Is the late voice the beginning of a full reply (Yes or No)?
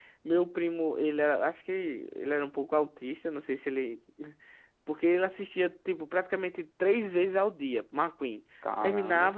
No